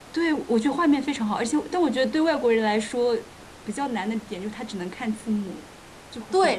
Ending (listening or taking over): taking over